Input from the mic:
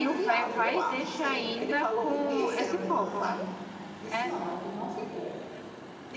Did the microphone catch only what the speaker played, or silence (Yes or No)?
No